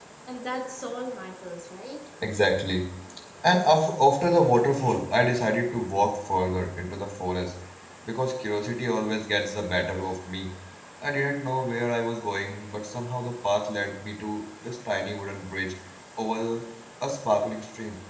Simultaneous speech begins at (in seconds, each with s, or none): none